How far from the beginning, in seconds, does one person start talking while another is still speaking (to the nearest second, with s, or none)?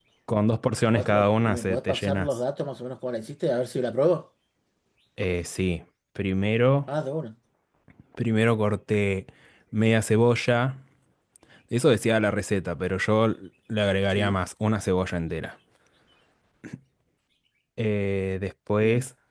1 s